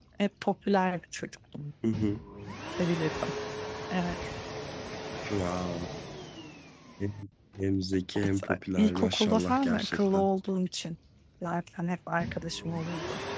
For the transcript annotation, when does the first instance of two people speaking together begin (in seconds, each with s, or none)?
8.4 s